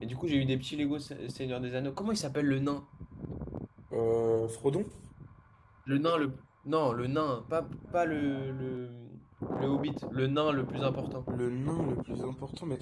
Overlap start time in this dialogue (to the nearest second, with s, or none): none